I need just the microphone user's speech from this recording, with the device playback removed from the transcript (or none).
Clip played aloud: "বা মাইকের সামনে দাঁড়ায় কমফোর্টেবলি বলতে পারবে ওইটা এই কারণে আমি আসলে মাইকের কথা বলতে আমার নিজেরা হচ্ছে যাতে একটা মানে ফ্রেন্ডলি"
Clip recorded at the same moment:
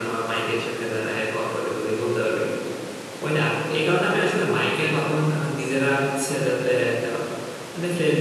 none